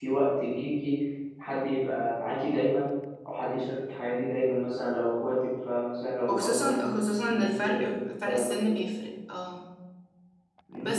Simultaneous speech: Yes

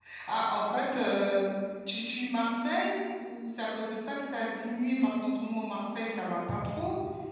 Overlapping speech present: No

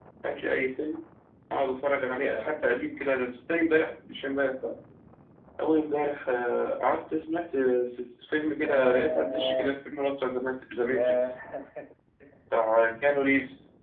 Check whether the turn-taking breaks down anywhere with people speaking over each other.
Yes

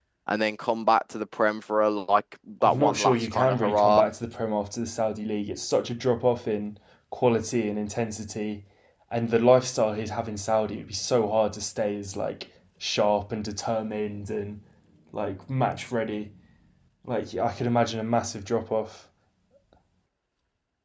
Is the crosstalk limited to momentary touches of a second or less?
No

